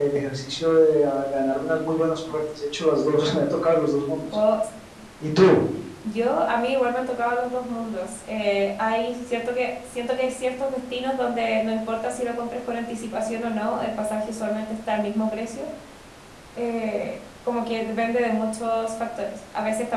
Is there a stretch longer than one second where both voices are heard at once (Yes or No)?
No